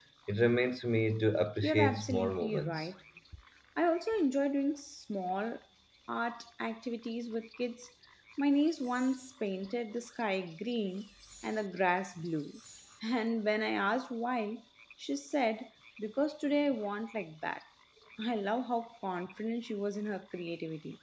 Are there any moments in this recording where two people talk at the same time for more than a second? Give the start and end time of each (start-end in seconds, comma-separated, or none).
1.6-2.9